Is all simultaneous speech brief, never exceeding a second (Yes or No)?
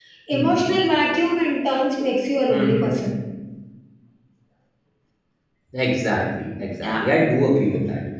Yes